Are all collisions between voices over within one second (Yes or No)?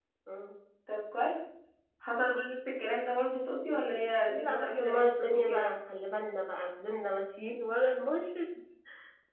No